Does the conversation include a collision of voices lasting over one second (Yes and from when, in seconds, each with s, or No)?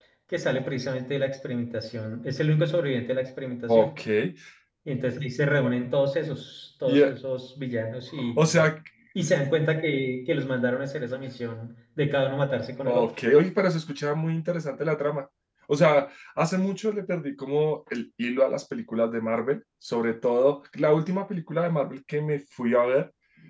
No